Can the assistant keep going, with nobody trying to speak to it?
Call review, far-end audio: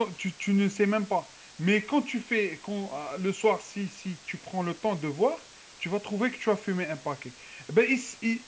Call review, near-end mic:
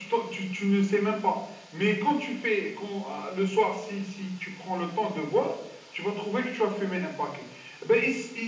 Yes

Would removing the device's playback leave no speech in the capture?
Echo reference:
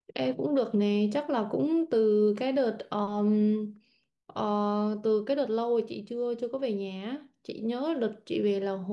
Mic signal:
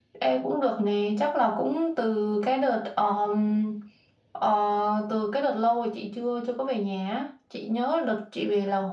Yes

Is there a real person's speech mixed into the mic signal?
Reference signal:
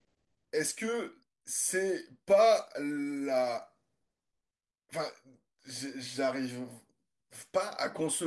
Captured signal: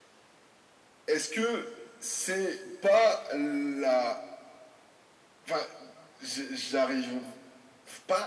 No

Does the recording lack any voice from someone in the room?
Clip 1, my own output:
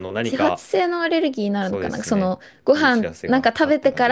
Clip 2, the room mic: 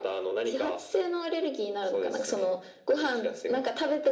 Yes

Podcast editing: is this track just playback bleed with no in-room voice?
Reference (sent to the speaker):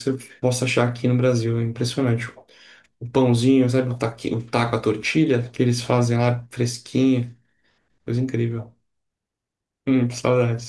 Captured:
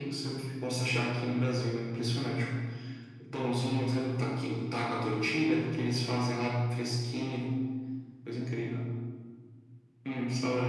Yes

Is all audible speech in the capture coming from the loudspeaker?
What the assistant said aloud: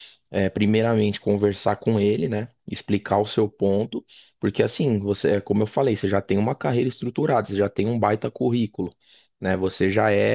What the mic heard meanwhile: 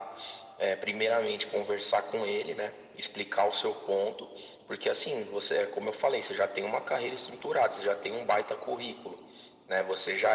Yes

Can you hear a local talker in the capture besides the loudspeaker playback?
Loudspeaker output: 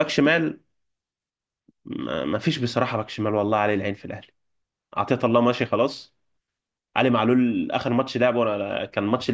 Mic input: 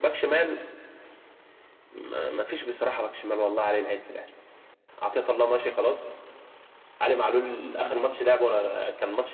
No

